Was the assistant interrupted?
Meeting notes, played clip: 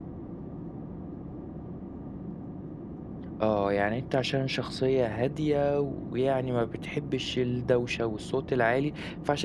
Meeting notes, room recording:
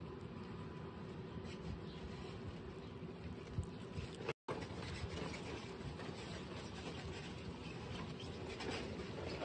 No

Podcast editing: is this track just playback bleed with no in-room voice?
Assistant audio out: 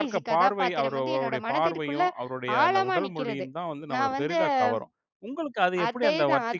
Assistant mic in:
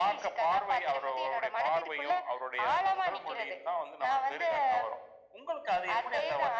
Yes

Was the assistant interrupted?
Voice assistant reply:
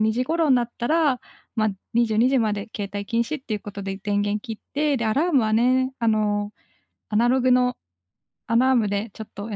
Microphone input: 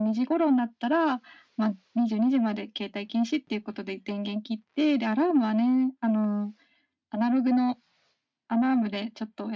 No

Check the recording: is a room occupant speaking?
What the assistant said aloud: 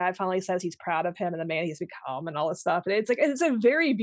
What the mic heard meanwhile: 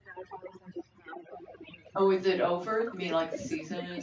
Yes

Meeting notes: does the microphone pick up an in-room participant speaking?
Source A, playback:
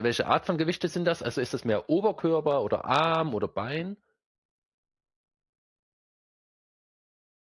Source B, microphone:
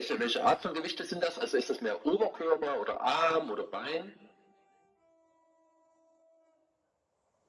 No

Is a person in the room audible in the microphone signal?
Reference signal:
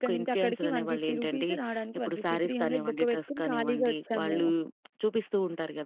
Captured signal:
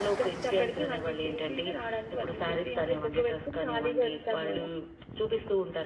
No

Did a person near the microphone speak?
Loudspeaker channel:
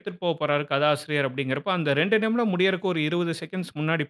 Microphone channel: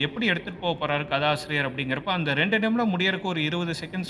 No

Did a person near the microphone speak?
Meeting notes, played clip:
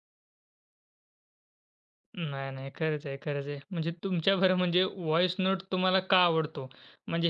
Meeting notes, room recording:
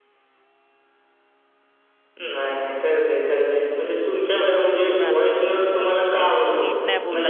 Yes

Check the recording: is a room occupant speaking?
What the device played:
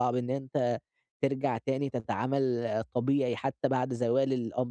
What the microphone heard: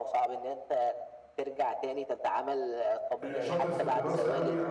Yes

